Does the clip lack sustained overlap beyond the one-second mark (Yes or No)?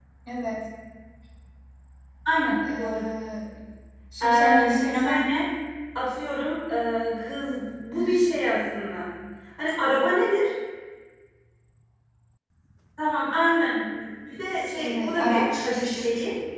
No